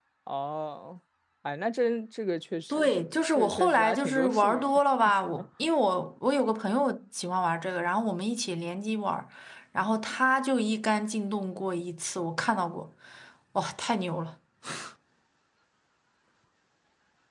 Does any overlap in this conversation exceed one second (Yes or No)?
Yes